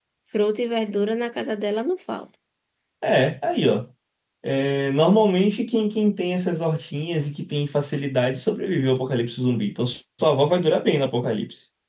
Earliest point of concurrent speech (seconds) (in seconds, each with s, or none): none